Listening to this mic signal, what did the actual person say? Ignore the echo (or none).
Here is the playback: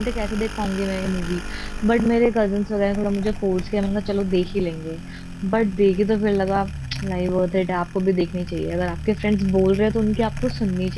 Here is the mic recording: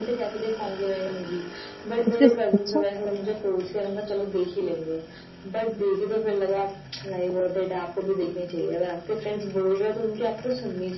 उसके अच्छा